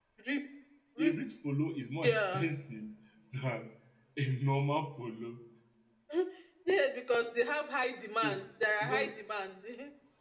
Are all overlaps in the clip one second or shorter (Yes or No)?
Yes